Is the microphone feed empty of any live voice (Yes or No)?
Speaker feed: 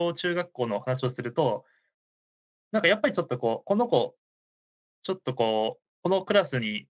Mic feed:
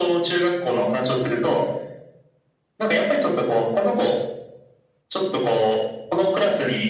Yes